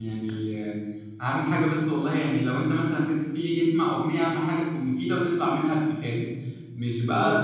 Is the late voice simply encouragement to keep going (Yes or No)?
Yes